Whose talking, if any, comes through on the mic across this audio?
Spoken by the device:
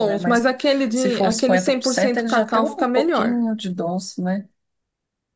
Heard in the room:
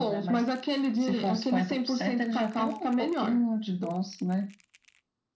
echo only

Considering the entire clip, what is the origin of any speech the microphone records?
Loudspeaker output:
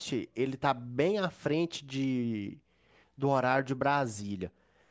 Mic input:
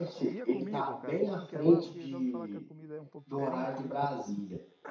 both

